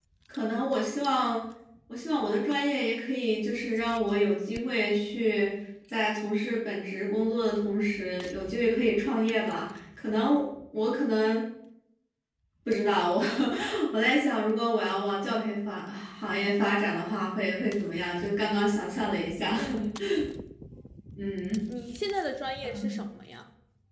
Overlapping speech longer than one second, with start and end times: none

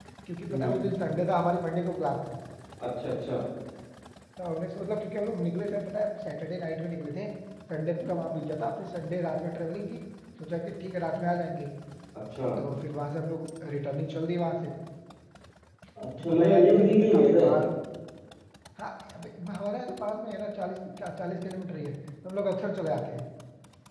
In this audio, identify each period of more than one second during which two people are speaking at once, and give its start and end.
16.2-17.4

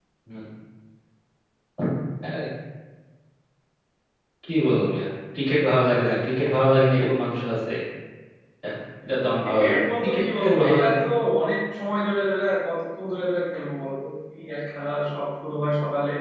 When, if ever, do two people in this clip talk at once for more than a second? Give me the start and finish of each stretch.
9.4-11.0

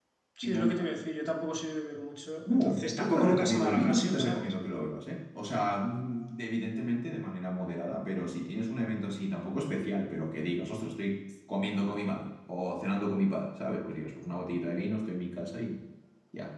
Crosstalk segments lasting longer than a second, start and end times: 2.5-4.5

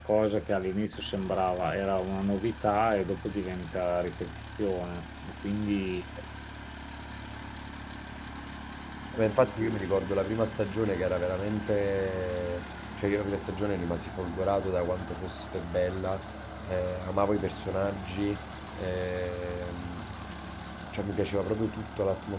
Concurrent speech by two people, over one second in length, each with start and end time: none

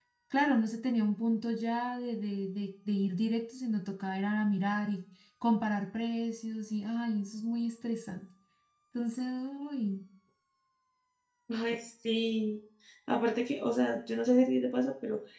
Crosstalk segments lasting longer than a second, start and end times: none

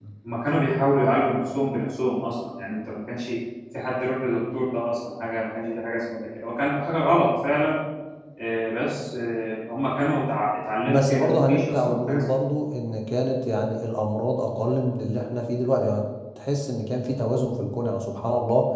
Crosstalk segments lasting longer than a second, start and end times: 10.9-12.2

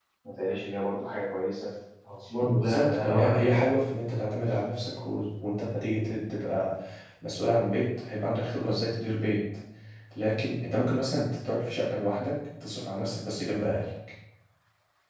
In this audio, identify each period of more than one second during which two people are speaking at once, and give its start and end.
2.4-3.8

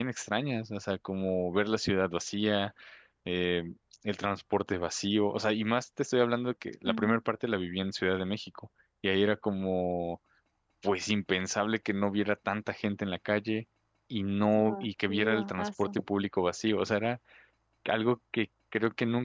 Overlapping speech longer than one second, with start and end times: 14.6-15.9

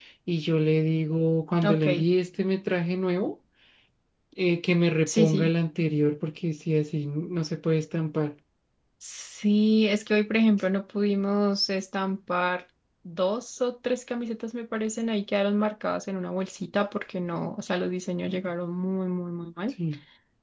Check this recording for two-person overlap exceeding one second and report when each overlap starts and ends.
none

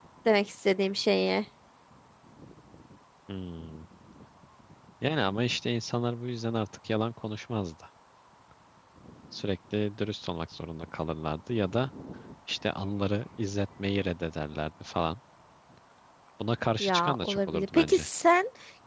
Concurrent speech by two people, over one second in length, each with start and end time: 16.8-18.1

